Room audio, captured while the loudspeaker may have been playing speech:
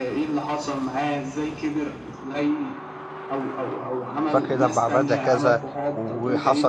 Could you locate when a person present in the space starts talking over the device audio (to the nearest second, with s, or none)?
4 s